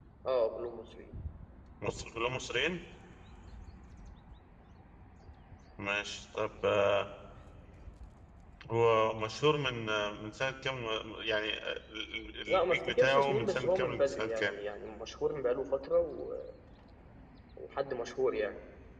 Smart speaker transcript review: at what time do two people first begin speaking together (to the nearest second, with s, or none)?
12 s